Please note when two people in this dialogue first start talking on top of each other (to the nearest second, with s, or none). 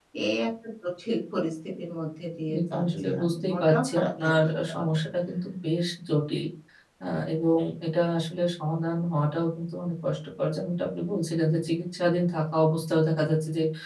2 s